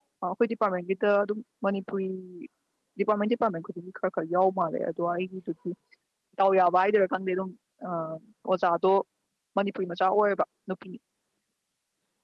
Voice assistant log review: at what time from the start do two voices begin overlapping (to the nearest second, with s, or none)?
none